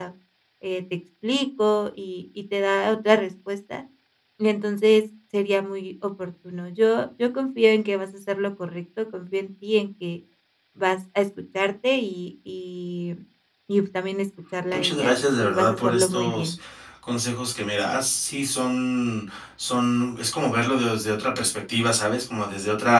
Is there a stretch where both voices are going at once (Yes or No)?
Yes